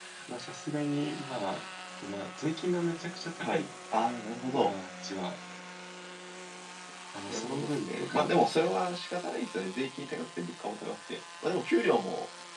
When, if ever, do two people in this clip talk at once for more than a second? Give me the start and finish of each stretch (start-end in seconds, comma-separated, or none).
7.3-8.7